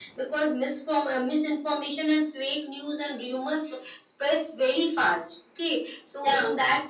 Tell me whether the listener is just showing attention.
Yes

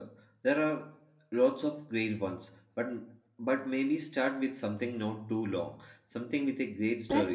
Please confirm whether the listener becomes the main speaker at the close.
Yes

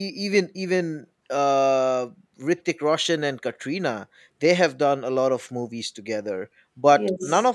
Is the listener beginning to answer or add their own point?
No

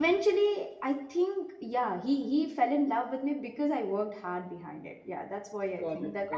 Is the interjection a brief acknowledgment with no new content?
No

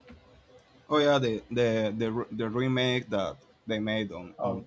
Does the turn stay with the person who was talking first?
No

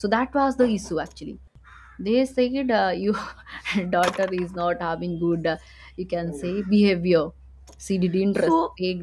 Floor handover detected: Yes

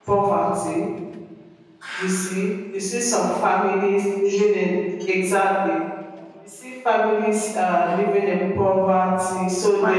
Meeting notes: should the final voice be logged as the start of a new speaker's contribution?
No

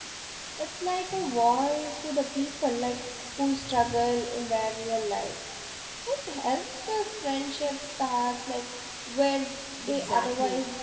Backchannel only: No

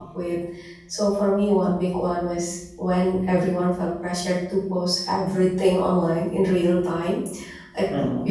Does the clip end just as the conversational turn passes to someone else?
No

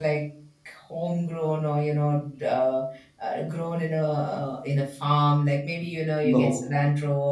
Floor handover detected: No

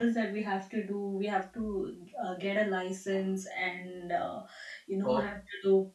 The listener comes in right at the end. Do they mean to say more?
No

